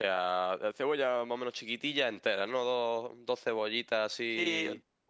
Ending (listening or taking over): taking over